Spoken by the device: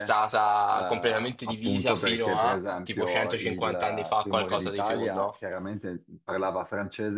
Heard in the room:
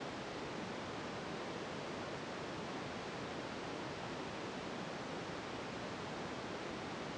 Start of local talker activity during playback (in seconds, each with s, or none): none